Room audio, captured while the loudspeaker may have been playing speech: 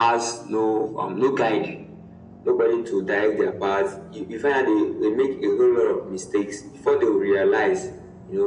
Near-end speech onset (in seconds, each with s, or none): none